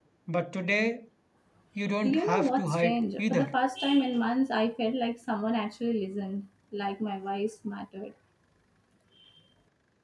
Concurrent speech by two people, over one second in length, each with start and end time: 2.0-3.5

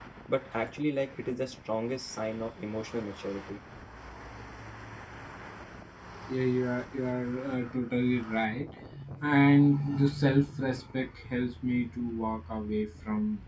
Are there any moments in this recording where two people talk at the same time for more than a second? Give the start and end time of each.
none

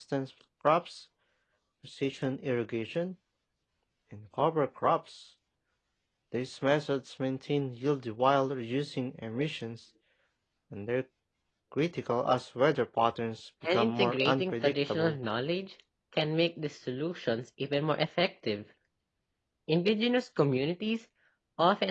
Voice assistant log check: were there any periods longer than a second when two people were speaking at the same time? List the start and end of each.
13.7-15.2

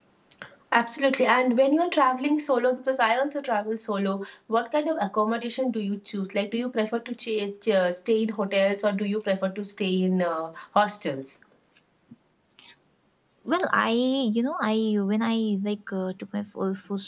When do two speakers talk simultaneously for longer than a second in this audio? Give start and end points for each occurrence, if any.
none

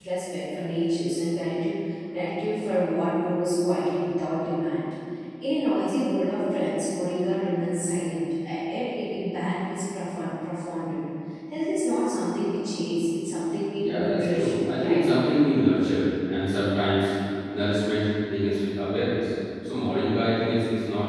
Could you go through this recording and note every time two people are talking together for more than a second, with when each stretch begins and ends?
13.8-15.0

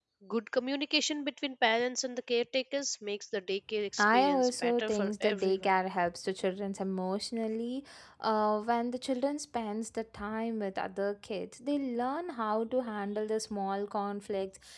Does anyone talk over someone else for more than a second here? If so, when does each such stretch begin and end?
4.0-5.7

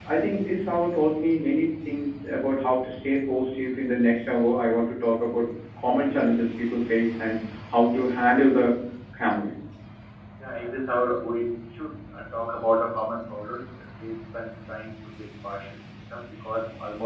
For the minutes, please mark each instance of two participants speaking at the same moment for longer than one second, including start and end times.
none

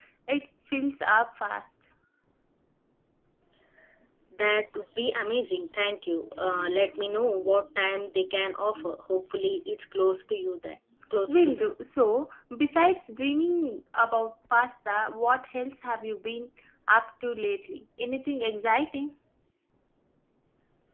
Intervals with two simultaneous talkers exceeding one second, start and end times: none

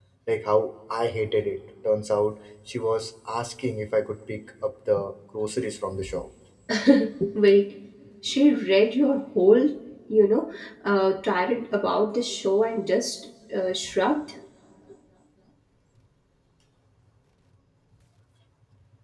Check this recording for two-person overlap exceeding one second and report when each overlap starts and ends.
none

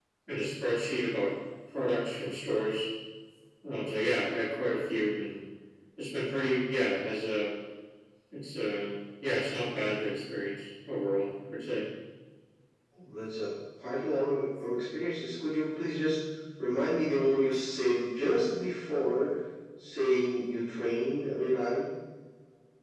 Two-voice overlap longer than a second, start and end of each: none

